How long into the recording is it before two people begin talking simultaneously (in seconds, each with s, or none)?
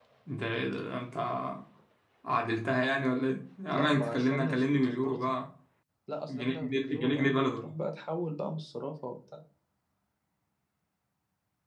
3.7 s